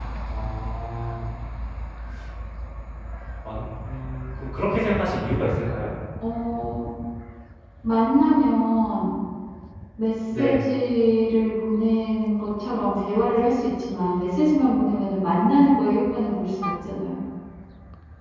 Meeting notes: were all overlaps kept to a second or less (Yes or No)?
Yes